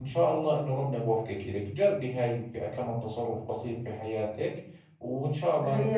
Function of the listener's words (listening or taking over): taking over